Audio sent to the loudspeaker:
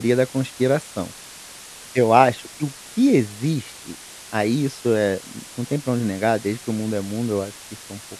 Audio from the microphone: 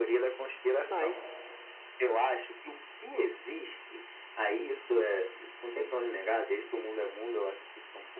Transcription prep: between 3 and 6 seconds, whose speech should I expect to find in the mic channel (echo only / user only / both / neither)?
echo only